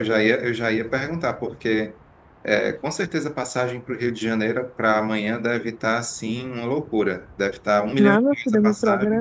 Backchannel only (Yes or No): No